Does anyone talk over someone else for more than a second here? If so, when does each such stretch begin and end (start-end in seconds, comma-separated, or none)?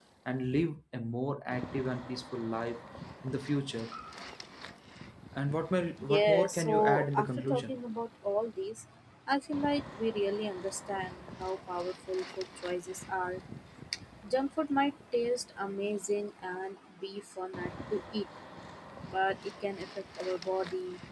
6.1-7.8